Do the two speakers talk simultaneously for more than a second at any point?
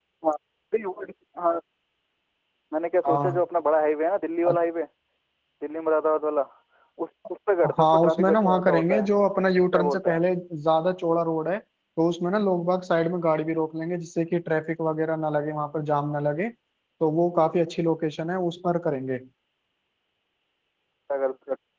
Yes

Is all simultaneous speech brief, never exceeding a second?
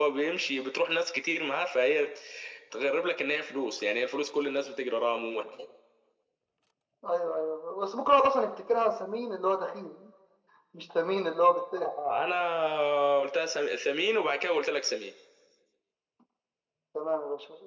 Yes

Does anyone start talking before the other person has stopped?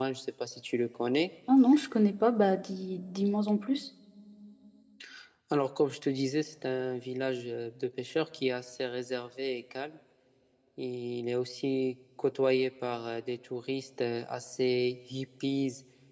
No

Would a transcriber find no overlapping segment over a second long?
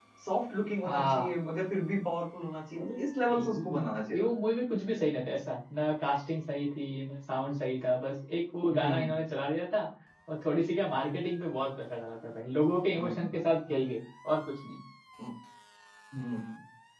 Yes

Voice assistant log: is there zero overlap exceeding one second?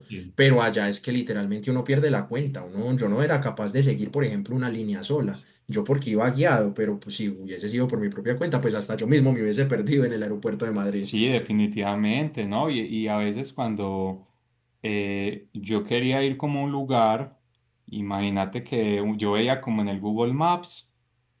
Yes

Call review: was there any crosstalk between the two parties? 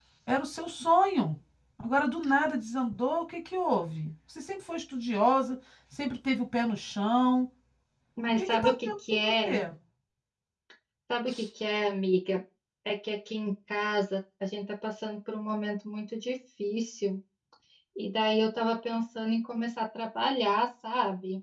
Yes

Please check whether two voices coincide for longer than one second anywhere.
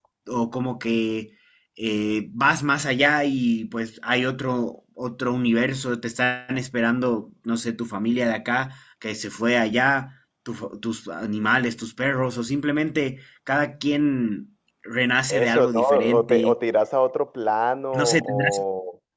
Yes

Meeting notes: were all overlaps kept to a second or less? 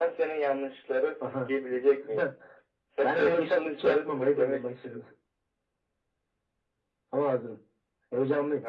No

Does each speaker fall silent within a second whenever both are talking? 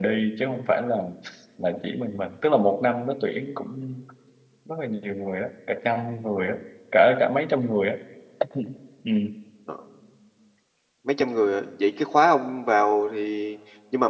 Yes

